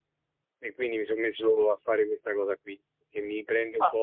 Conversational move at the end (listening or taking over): listening